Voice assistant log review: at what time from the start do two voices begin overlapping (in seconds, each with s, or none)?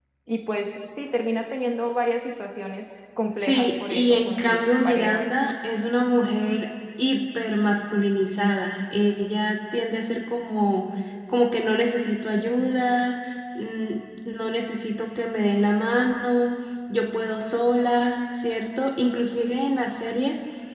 3.3 s